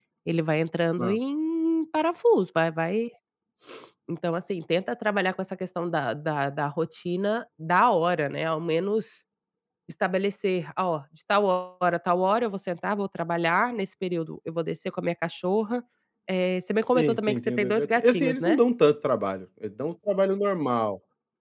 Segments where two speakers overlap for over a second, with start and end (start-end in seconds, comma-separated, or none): 16.9-18.6